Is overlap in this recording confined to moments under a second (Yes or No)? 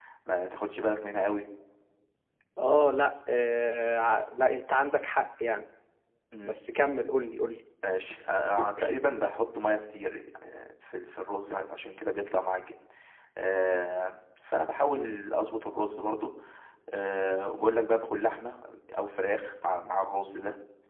Yes